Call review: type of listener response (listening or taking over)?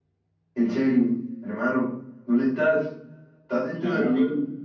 taking over